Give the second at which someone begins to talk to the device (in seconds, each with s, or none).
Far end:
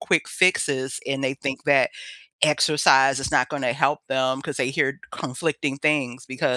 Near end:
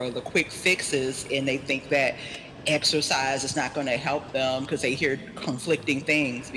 none